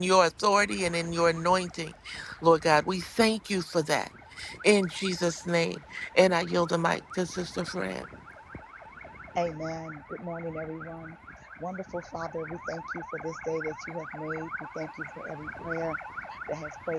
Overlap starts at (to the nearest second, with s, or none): none